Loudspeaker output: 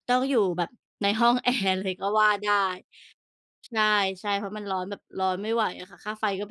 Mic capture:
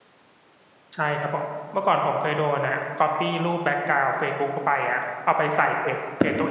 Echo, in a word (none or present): none